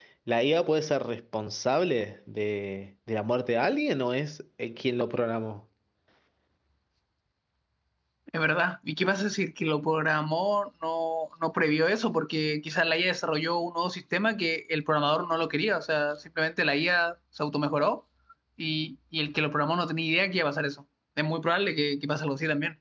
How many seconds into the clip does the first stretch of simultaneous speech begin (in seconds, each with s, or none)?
none